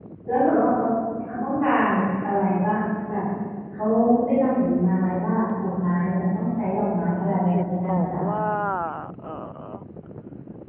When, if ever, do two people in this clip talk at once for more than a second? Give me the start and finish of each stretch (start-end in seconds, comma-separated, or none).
7.0-8.2